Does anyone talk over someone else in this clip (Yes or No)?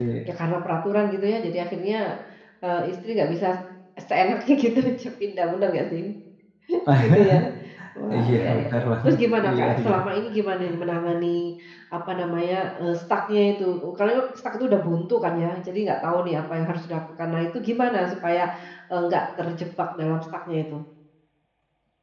Yes